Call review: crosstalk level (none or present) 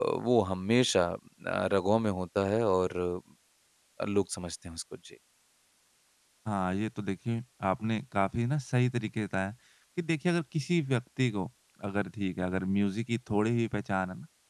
none